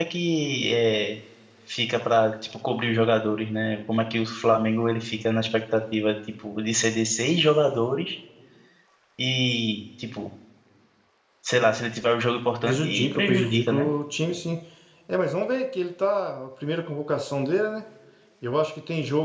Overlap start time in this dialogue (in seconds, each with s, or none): 12.6 s